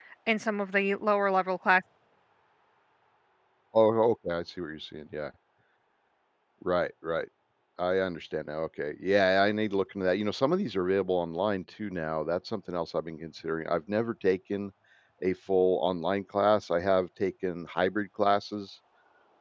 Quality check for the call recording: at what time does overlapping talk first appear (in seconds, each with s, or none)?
none